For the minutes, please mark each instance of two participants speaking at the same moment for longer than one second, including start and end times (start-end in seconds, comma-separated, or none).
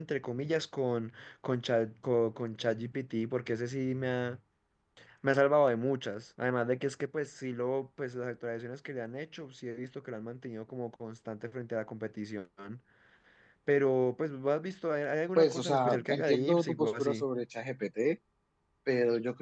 15.3-17.2